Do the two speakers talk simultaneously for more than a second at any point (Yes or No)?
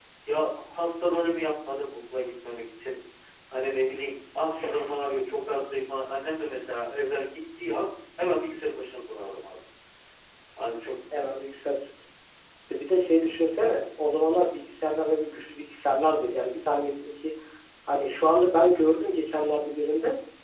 No